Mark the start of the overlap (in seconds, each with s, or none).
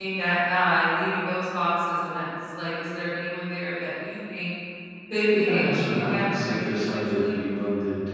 5.3 s